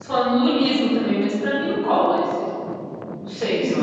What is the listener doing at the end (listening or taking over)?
taking over